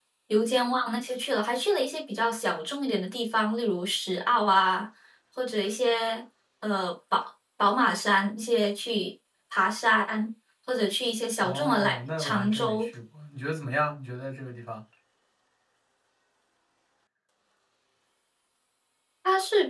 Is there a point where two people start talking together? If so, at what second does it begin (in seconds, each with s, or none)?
11.4 s